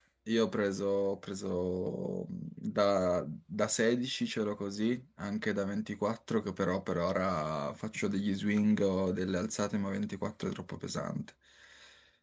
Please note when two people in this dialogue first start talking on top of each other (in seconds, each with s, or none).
none